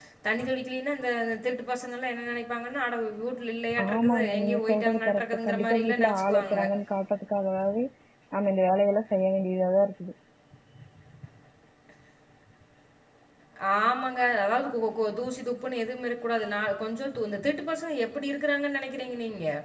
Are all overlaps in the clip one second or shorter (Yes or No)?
No